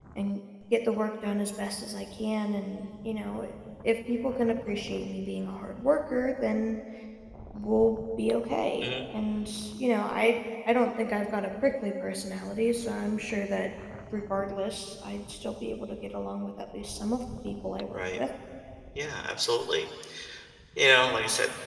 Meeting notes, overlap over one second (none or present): none